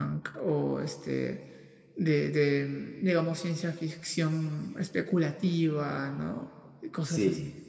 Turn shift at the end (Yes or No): Yes